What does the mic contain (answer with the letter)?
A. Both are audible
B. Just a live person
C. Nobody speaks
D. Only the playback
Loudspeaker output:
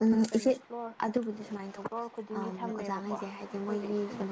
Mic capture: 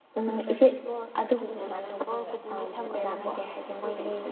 A